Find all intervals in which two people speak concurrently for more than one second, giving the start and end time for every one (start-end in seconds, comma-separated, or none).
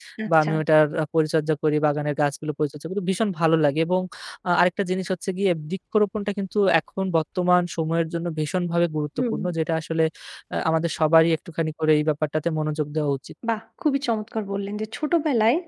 none